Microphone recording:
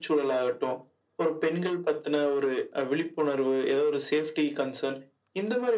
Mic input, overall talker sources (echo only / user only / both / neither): echo only